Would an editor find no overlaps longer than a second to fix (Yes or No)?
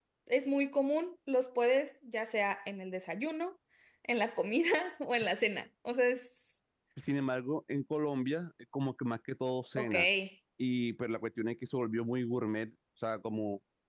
Yes